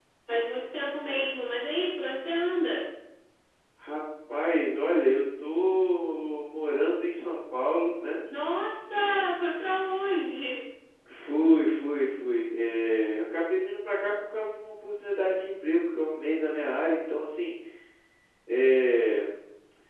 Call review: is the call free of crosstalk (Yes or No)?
Yes